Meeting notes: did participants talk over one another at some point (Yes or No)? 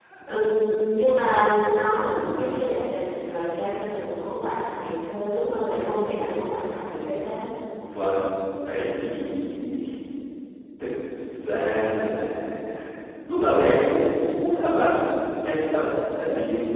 No